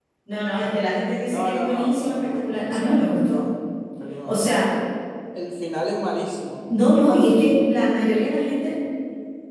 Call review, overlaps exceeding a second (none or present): present